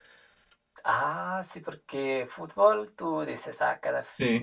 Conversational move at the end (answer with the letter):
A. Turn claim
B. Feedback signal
B